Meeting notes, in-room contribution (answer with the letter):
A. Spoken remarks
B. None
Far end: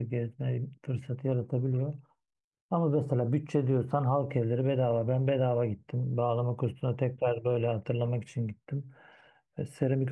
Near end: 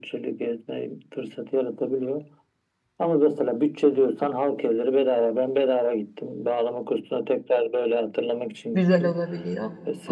A